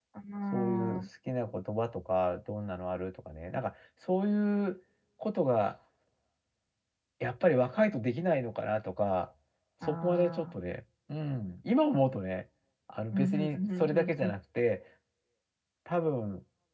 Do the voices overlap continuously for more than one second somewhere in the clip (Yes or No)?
Yes